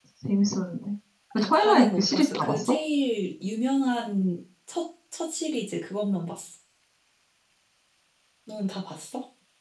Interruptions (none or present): present